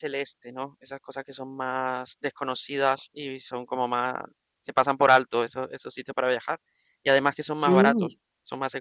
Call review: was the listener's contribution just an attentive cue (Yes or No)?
Yes